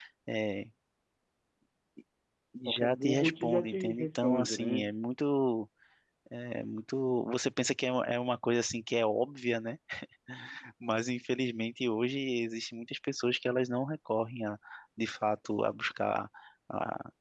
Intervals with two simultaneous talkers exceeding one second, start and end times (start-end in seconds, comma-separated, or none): 2.7-4.9